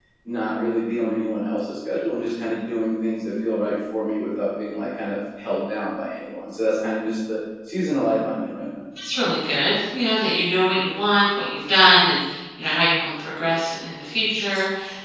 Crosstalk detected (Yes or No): No